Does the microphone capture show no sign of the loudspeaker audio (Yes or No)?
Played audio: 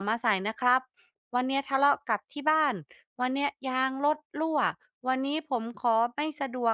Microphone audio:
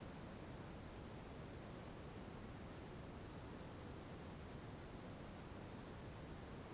Yes